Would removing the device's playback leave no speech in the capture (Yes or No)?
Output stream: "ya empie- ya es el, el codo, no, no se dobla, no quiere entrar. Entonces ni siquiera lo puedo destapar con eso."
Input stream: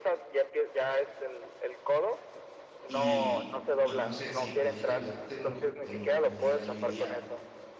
No